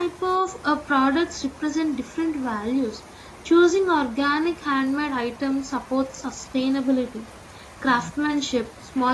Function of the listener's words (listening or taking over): listening